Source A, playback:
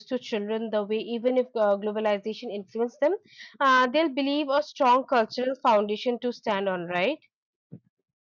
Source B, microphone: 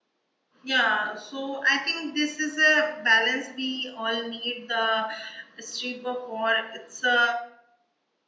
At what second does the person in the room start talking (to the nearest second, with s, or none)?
1 s